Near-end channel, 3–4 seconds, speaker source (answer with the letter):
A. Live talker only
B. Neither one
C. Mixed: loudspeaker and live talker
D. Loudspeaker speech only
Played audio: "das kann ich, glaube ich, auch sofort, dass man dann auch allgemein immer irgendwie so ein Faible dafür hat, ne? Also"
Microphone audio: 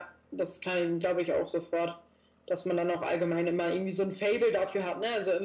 D